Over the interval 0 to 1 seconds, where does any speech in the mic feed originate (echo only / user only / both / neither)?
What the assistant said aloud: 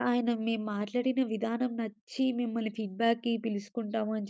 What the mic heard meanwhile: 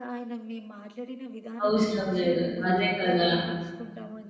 echo only